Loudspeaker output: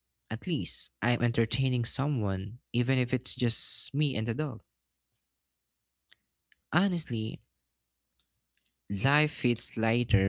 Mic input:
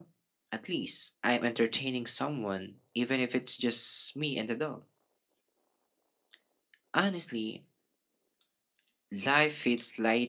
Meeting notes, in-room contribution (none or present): none